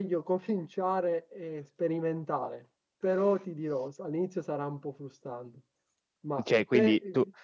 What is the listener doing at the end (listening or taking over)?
taking over